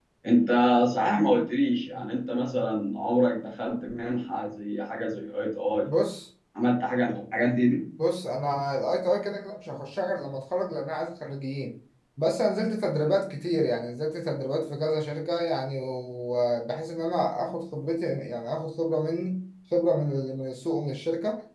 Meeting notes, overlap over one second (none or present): none